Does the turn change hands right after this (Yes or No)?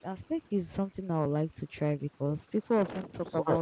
No